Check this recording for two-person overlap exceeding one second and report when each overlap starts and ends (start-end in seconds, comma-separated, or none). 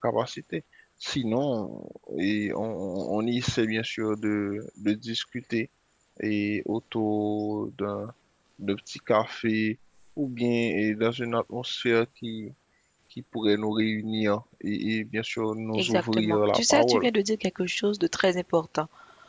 15.8-17.1